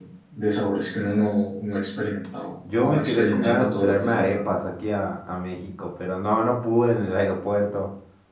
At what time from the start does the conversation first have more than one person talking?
3 s

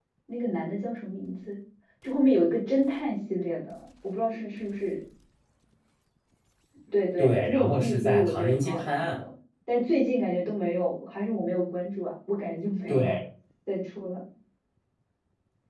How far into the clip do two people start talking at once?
7 s

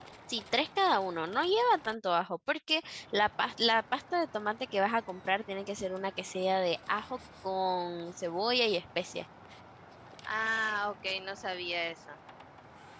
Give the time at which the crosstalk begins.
none

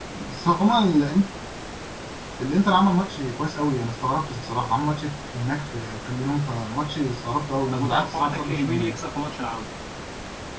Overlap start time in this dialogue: 8 s

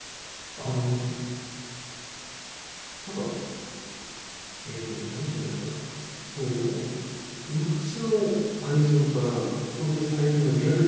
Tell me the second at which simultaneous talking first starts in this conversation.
none

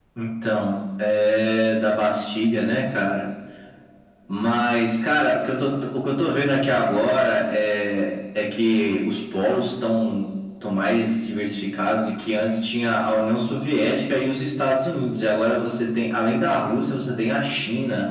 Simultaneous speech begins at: none

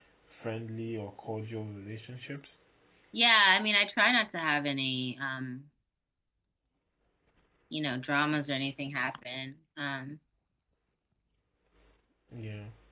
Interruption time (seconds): none

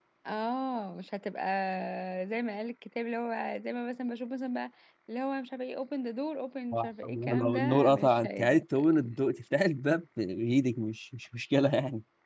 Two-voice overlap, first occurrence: 7 s

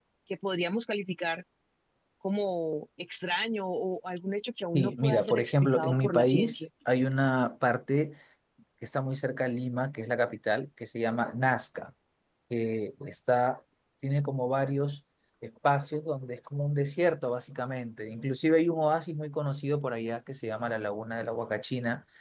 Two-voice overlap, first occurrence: 5 s

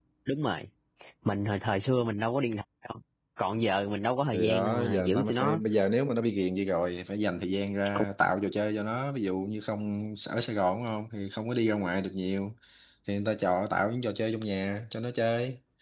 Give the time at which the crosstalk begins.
4 s

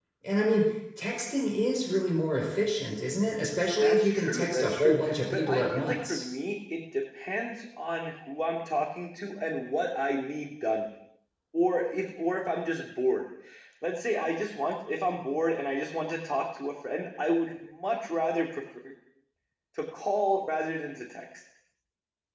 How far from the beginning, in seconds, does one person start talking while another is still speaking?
4 s

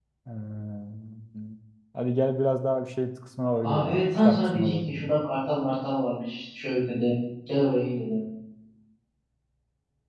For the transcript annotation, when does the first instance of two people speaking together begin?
4 s

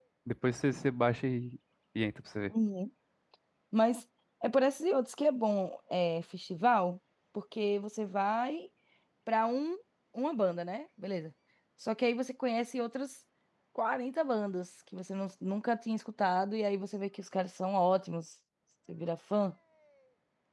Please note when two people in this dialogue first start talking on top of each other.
none

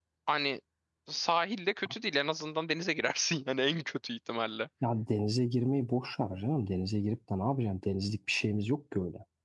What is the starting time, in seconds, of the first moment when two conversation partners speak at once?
none

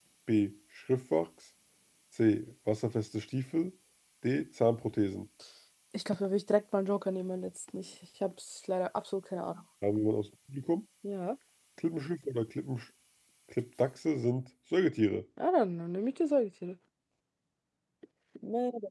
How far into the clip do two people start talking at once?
none

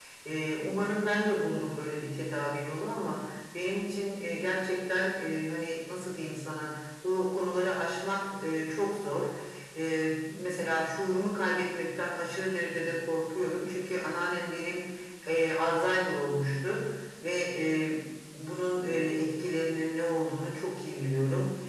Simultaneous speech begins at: none

